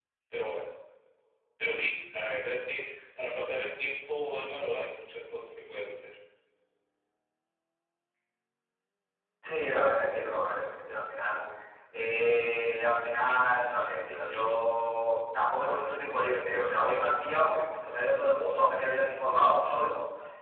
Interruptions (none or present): none